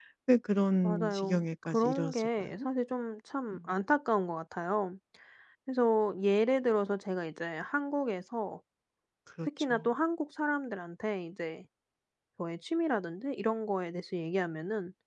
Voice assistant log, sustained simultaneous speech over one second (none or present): present